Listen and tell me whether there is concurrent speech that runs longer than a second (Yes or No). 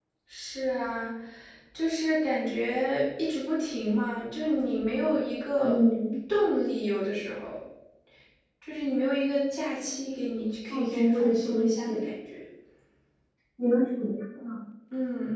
Yes